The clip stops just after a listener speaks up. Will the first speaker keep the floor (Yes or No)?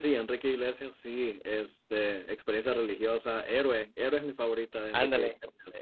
No